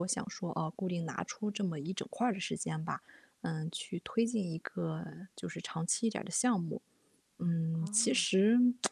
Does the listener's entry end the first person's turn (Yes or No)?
No